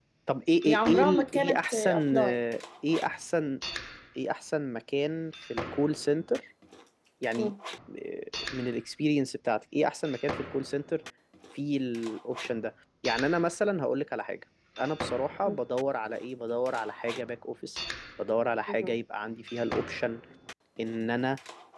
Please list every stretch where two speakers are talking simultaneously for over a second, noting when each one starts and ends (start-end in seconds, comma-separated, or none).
0.7-2.4